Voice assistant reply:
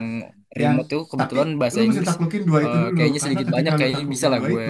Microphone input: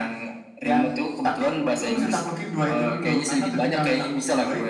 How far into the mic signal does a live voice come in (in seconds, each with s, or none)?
none